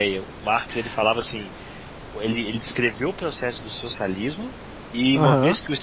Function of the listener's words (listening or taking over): taking over